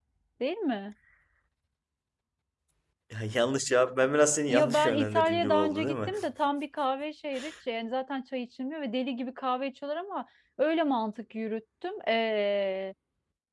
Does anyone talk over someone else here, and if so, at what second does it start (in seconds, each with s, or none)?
4.5 s